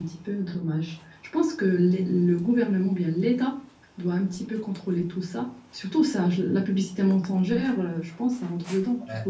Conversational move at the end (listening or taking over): taking over